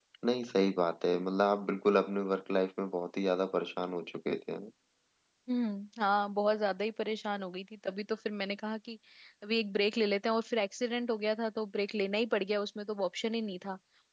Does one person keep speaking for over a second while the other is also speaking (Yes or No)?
No